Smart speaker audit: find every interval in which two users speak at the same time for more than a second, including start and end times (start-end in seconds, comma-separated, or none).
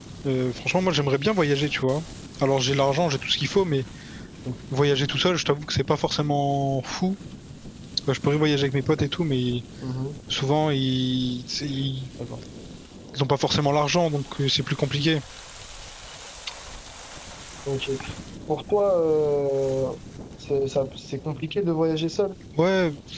none